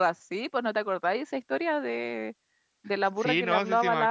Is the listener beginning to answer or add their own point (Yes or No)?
Yes